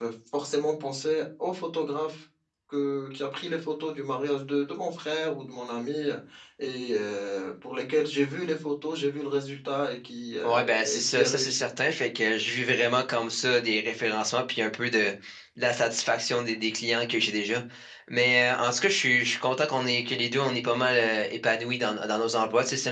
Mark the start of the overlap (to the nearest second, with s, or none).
10 s